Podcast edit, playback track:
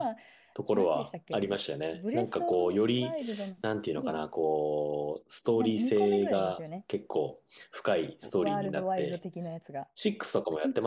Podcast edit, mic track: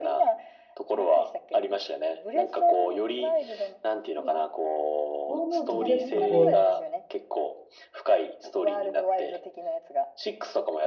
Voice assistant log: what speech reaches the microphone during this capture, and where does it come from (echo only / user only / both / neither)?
both